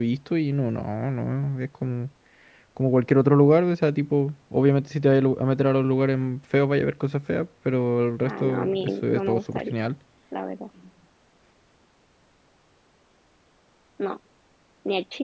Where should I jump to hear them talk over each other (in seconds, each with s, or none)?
8.2 s